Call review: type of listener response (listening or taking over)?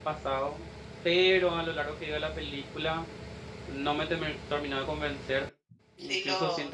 listening